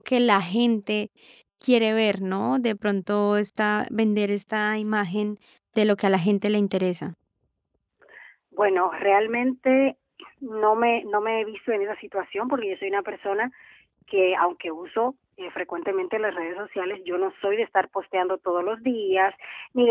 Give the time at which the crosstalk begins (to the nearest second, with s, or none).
none